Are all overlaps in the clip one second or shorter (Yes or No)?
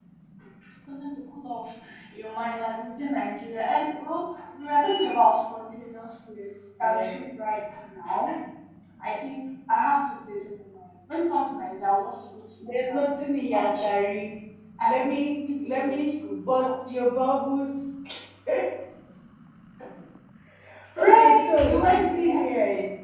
No